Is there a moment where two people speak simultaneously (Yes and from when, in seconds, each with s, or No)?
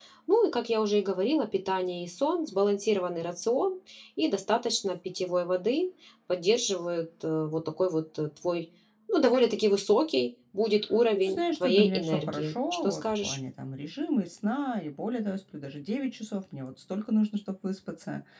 Yes, from 11.1 s